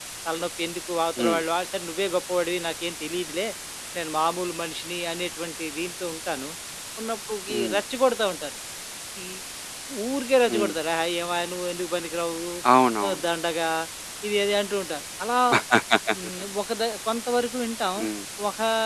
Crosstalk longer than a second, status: none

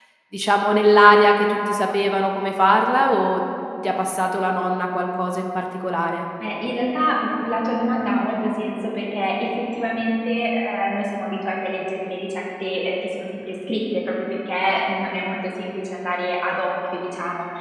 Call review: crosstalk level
none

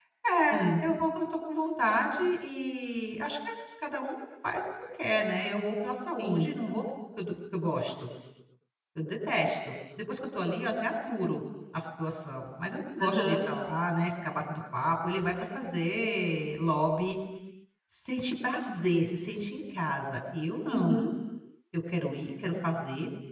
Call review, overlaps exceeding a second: none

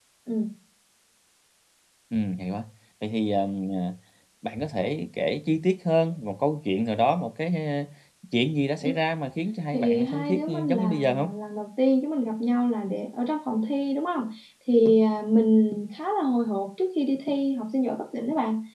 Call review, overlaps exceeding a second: present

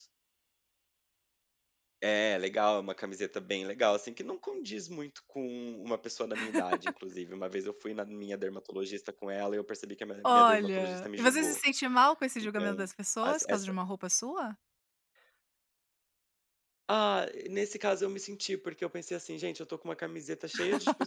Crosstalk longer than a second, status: present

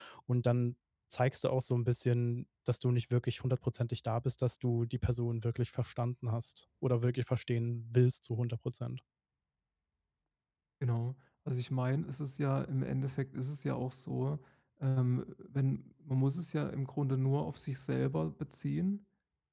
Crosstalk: none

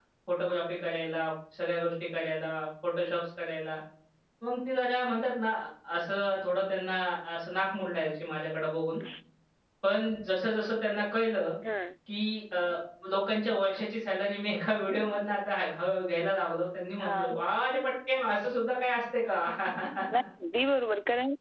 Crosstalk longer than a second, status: none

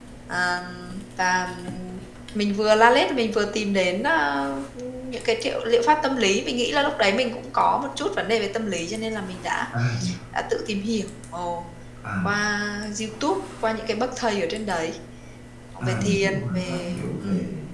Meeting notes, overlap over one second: present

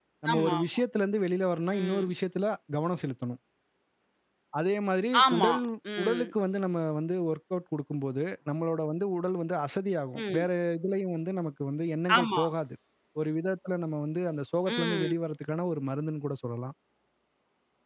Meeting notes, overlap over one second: none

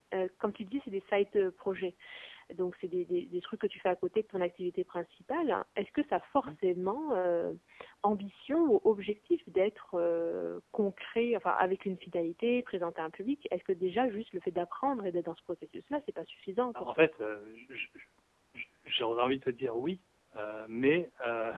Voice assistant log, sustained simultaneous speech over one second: none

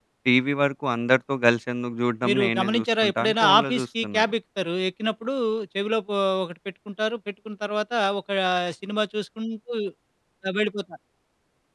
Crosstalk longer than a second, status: present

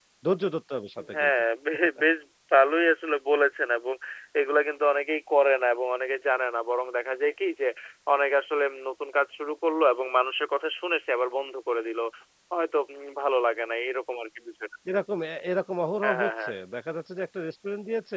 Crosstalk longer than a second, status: none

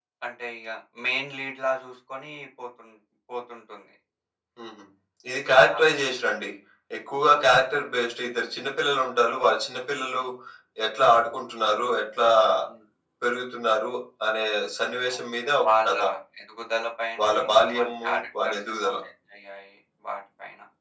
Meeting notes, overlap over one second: present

